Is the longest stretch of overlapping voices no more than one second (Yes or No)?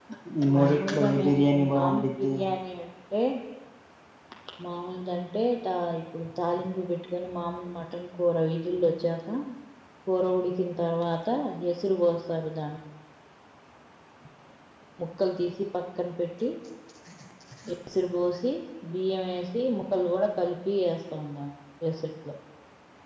No